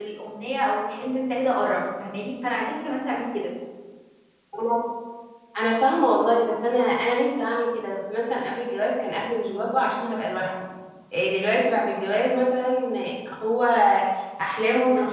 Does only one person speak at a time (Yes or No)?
Yes